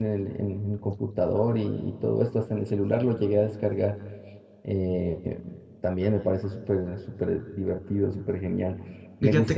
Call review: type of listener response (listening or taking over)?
listening